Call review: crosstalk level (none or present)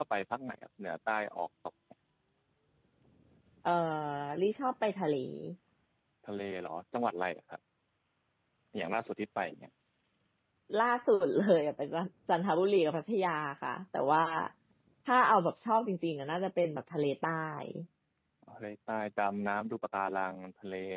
none